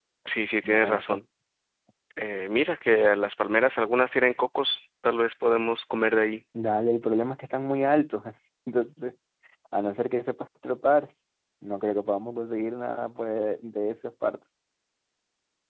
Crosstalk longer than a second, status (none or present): none